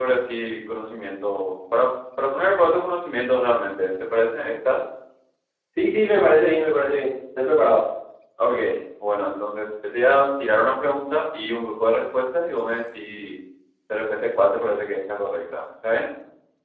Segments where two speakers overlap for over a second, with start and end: none

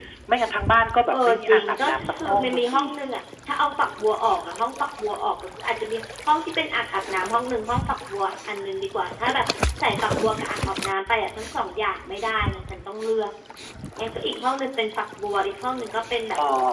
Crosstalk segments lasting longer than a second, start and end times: 1.1-2.8

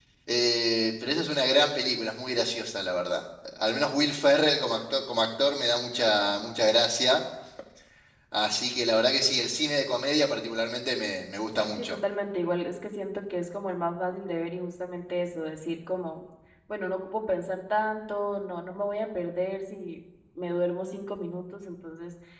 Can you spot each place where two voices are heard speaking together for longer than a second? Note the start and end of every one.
none

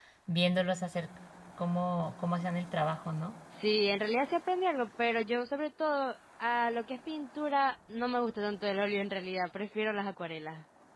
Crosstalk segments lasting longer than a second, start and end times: none

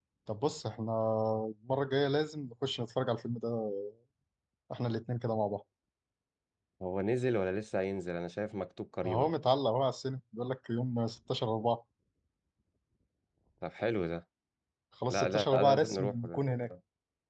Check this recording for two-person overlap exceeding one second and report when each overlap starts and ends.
15.1-16.4

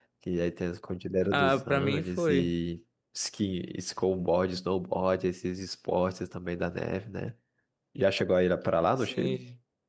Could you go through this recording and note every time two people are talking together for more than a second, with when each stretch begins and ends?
1.3-2.5

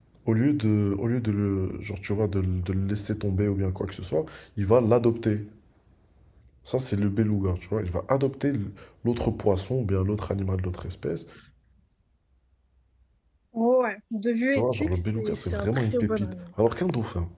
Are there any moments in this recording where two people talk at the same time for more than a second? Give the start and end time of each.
14.5-16.4

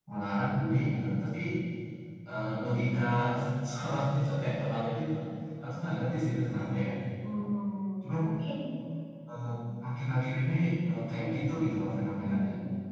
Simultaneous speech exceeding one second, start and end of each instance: none

